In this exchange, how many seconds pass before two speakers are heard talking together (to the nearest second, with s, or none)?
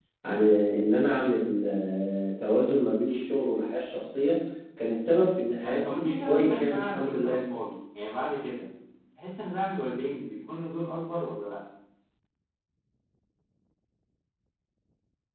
6 s